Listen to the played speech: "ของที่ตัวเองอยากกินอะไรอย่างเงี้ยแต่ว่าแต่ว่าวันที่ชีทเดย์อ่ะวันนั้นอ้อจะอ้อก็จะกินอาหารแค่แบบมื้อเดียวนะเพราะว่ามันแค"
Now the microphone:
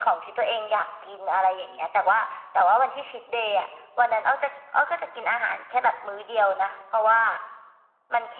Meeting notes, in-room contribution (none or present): none